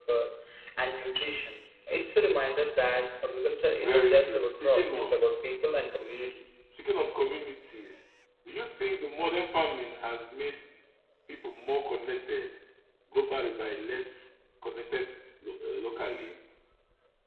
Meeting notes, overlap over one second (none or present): present